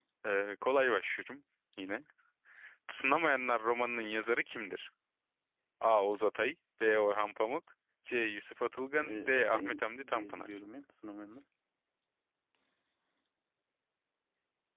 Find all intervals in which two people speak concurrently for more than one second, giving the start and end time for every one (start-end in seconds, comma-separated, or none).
9.0-10.6